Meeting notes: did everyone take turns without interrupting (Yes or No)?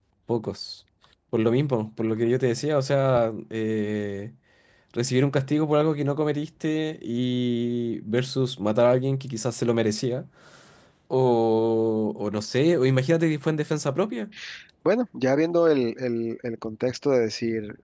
Yes